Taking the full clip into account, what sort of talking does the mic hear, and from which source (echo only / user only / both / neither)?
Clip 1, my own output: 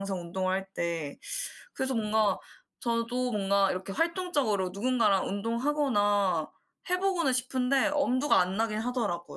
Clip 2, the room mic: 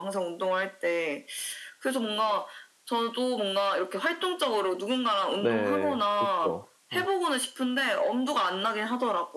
both